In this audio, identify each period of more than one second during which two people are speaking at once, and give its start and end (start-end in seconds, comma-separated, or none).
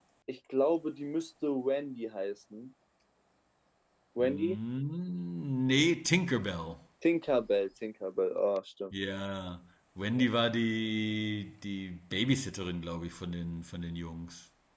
none